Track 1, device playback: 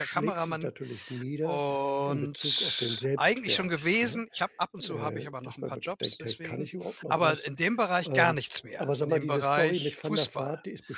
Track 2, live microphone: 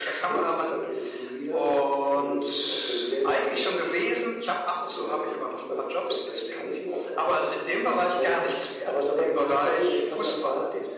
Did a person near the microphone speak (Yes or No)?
No